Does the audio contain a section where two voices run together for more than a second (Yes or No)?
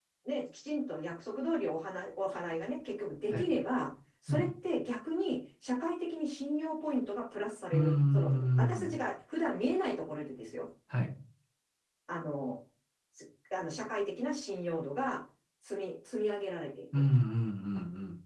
Yes